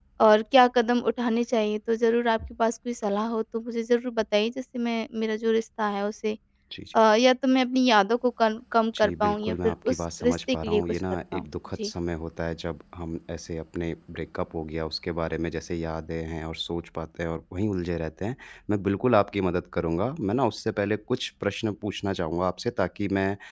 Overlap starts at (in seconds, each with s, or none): 8.9 s